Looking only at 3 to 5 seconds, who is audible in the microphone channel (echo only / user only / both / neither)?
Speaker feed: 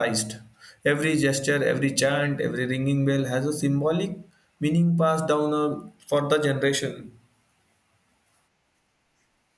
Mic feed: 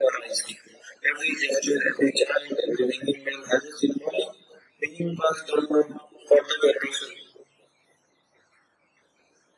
echo only